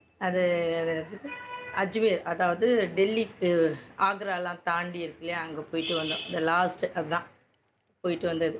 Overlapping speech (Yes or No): No